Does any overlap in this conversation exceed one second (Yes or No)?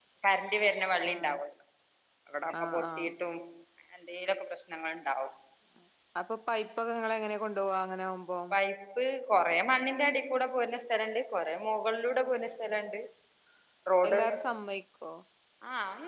No